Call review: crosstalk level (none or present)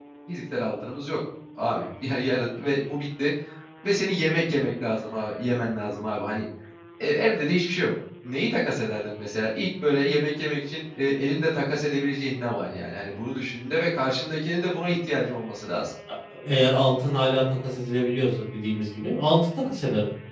none